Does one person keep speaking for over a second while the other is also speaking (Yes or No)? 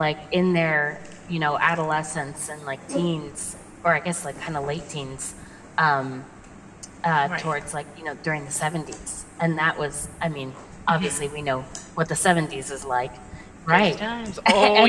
No